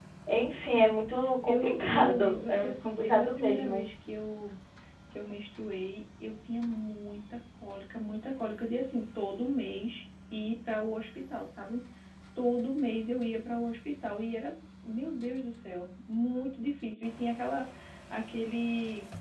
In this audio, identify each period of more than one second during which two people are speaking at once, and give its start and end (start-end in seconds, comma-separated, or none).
1.4-3.8